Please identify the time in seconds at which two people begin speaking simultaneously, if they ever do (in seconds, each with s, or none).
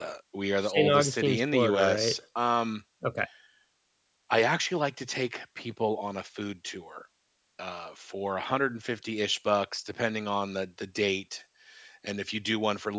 0.6 s